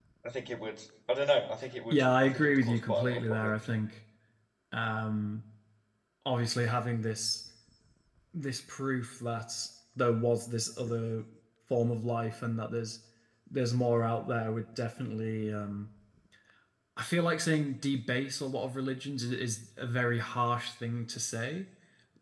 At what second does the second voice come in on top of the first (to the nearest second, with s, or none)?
2 s